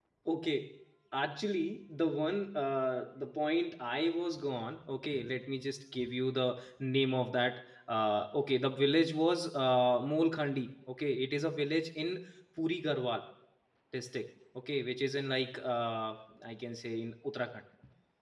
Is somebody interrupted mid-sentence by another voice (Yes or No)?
No